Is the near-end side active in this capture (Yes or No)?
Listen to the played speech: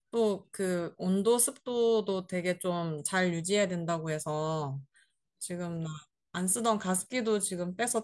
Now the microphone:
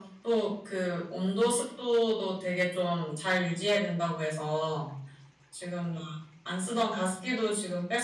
No